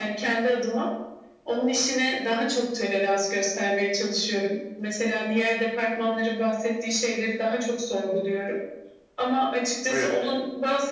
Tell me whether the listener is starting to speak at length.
No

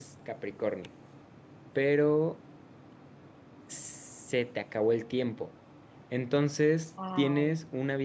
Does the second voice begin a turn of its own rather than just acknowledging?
No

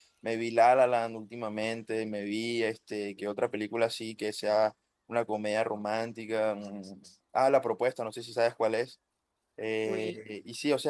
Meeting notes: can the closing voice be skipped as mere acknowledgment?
Yes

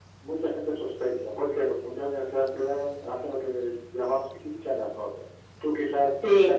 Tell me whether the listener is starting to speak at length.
No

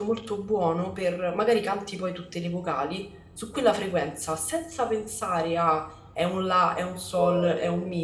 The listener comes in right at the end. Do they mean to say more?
No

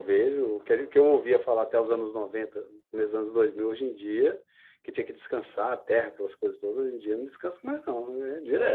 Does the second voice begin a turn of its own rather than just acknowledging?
Yes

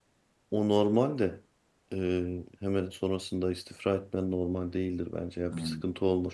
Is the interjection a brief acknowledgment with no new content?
Yes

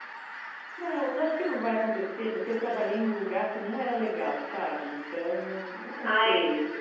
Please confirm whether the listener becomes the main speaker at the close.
Yes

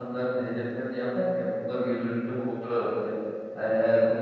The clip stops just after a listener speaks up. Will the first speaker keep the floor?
Yes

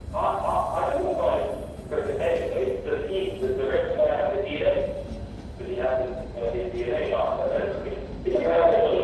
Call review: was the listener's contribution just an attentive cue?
No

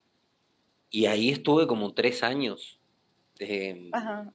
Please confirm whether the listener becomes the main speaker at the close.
Yes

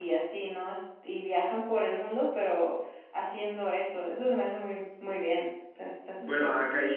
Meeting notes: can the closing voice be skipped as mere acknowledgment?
No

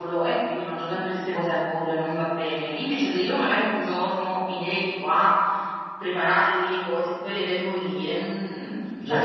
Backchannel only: No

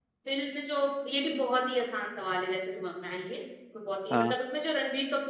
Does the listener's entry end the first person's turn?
No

